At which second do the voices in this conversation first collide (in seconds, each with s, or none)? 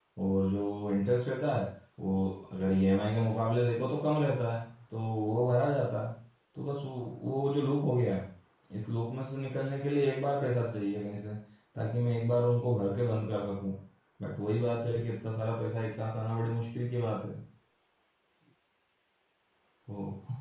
none